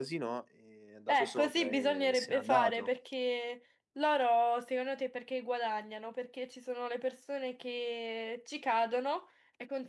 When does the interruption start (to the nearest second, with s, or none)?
1 s